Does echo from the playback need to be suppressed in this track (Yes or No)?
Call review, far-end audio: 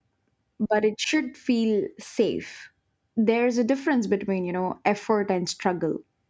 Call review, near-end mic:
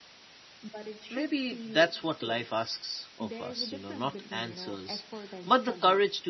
Yes